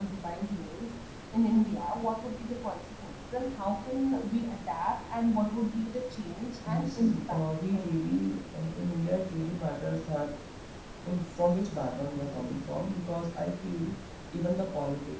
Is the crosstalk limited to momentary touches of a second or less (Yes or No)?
No